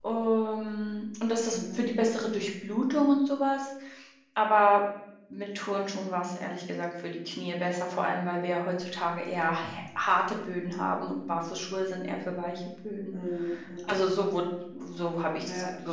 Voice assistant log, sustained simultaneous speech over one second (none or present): none